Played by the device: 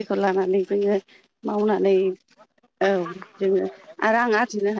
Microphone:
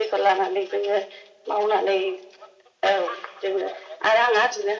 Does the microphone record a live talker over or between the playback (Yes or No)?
No